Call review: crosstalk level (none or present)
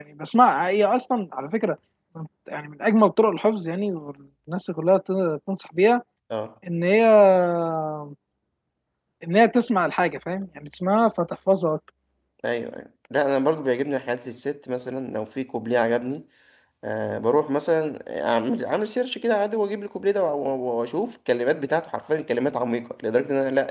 none